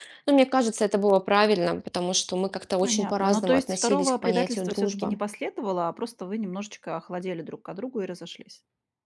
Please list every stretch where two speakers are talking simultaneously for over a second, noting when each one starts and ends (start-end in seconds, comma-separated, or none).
2.8-5.2